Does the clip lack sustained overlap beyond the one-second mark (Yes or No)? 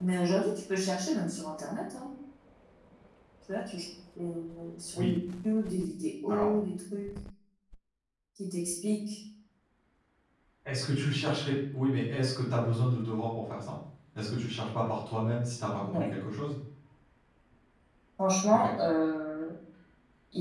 Yes